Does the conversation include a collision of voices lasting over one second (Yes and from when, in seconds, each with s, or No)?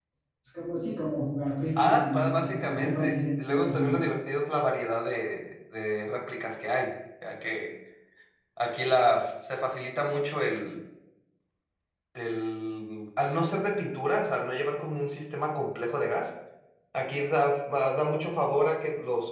Yes, from 1.8 s